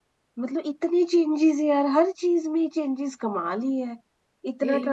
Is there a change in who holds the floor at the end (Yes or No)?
No